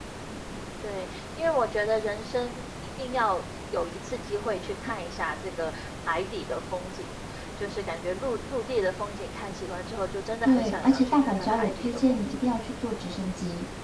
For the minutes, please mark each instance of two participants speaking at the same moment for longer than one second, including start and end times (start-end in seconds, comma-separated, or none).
10.4-12.4